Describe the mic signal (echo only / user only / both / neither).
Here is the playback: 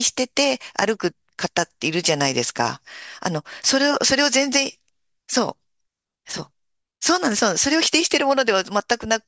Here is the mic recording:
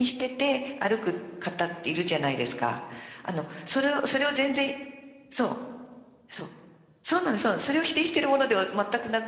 echo only